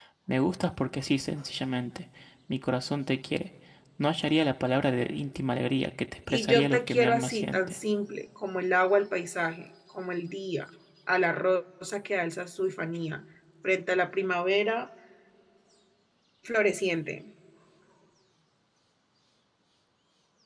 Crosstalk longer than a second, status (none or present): present